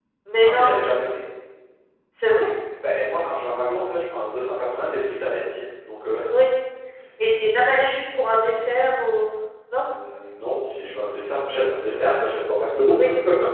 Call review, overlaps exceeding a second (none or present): none